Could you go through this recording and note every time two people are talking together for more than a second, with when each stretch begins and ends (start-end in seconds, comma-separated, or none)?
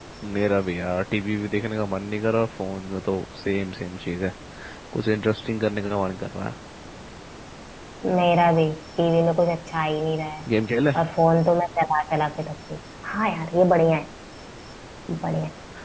none